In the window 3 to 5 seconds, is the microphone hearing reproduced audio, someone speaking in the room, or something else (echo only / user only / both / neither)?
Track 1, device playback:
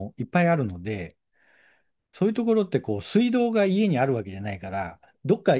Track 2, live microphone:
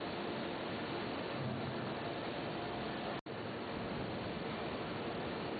neither